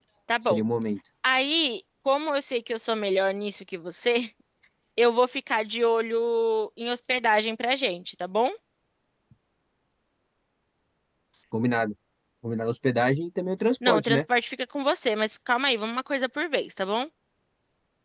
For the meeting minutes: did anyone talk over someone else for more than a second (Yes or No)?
No